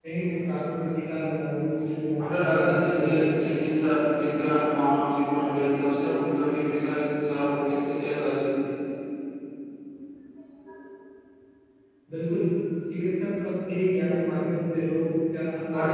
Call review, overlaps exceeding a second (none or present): present